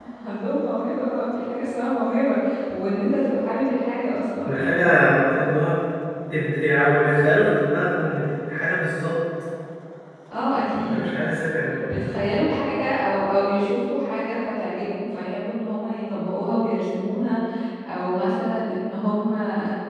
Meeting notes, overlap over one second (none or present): none